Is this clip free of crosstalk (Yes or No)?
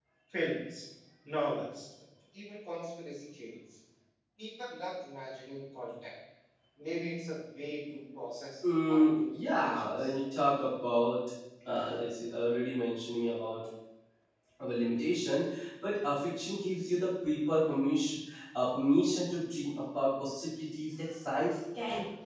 No